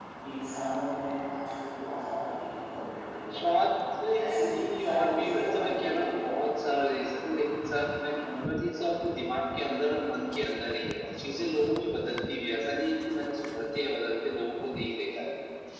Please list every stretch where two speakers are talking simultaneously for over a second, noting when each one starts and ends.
4.2-6.5

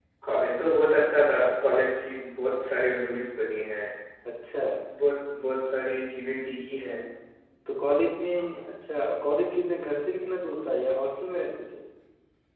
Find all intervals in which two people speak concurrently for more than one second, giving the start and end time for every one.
none

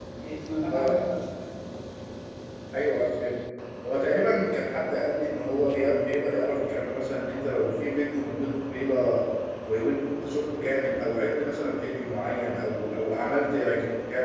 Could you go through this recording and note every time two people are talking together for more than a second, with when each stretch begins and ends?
none

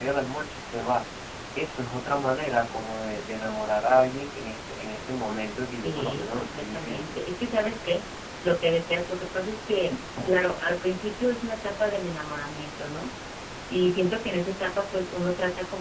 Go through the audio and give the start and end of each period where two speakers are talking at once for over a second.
5.8-7.2

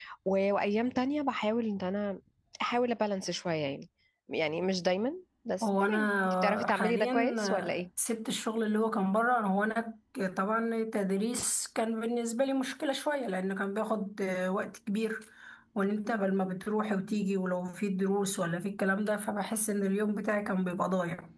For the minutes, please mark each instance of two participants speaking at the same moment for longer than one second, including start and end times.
5.6-7.8

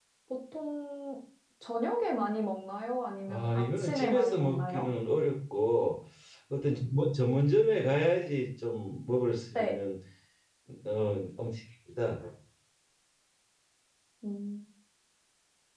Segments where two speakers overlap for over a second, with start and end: 3.3-4.8

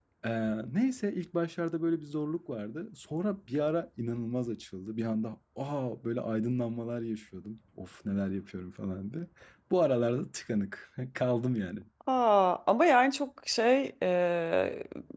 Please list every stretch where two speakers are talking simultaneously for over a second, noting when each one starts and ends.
none

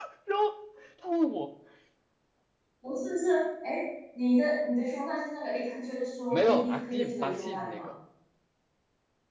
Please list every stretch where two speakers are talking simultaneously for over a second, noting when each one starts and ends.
6.3-7.9

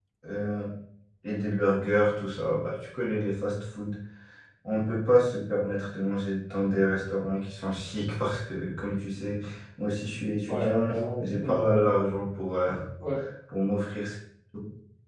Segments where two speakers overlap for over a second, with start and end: 10.5-11.9

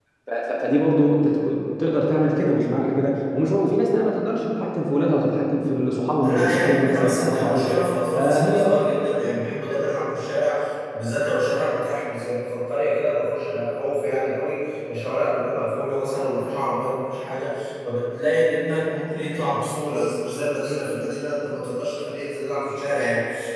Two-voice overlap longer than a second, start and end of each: 6.2-7.7

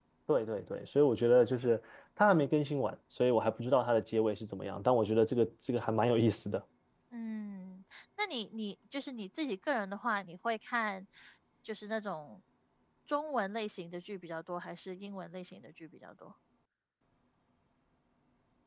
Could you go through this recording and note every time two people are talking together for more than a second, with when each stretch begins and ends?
none

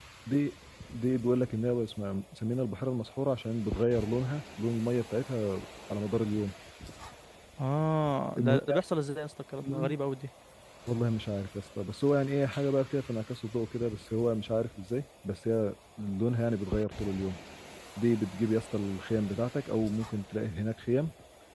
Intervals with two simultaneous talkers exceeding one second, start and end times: none

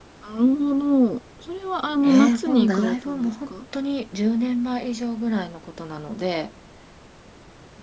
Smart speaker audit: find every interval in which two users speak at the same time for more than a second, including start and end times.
2.0-3.5

